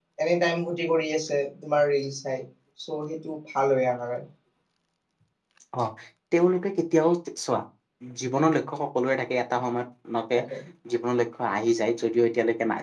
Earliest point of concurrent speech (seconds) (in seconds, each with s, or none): none